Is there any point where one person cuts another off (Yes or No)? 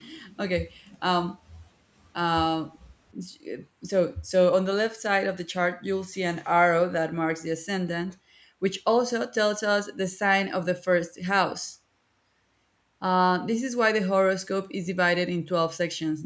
No